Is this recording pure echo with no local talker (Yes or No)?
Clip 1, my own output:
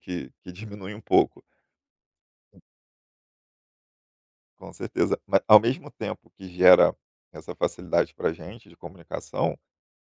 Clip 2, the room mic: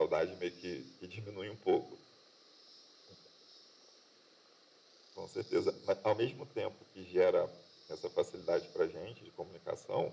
Yes